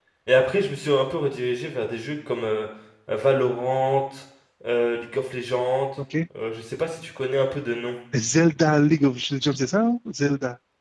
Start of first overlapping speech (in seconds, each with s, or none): none